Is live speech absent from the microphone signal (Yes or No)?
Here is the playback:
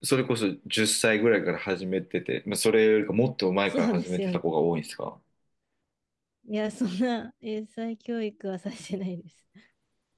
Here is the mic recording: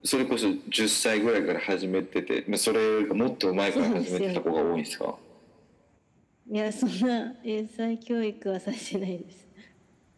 Yes